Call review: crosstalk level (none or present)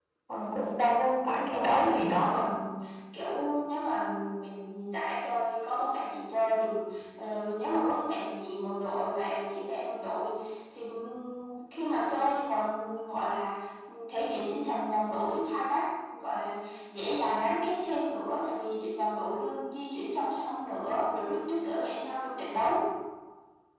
present